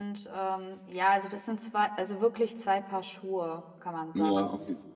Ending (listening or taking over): taking over